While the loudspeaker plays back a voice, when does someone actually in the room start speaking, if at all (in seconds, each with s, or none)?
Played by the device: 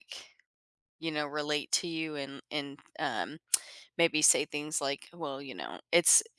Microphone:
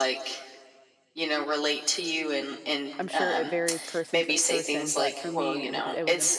3.0 s